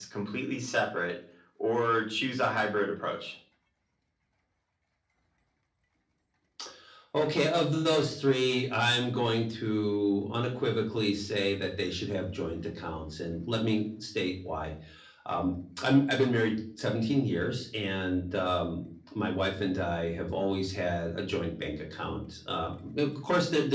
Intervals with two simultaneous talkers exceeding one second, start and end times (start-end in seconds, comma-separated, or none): none